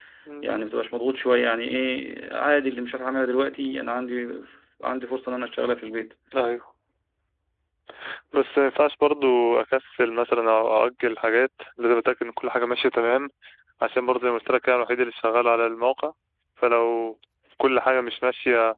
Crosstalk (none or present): none